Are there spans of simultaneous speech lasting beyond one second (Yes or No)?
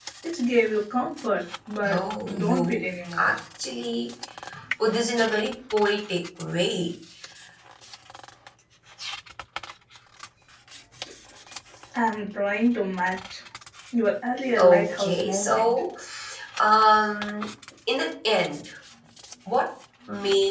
Yes